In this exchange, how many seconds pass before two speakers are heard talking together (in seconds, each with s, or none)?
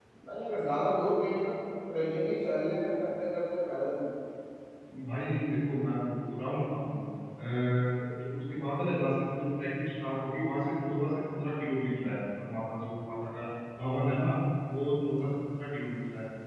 none